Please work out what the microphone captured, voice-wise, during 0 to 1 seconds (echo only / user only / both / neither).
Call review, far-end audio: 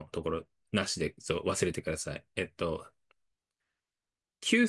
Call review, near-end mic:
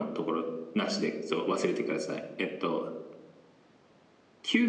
echo only